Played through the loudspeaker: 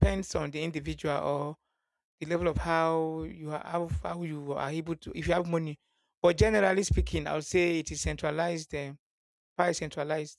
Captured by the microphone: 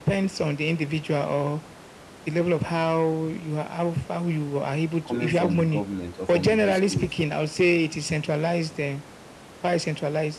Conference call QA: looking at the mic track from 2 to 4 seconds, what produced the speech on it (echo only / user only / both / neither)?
echo only